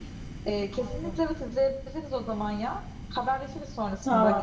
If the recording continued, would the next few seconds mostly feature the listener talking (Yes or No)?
Yes